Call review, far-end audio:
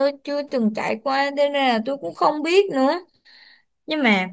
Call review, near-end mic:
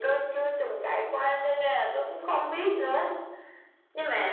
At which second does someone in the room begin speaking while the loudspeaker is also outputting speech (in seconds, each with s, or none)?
none